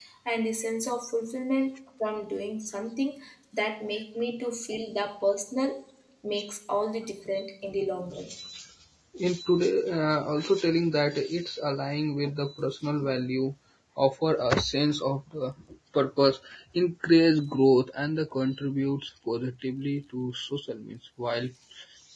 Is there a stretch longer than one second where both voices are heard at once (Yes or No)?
No